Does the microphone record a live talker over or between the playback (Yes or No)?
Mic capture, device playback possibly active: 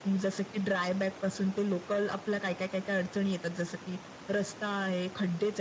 No